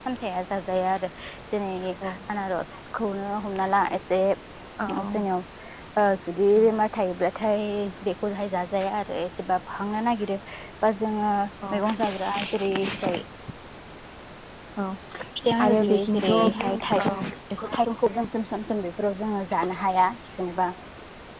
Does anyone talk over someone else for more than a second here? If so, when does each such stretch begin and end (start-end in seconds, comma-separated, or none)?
15.6-17.1